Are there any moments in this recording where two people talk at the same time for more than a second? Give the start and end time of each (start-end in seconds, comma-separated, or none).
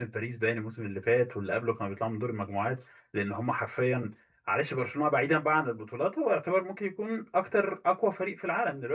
none